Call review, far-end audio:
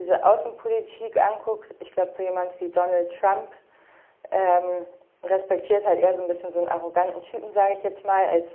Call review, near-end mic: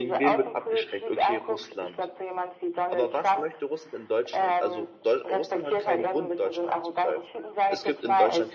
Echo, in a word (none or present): present